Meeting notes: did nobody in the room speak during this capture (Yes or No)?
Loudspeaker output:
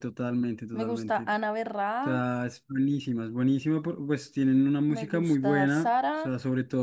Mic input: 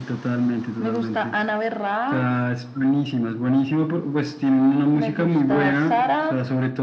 Yes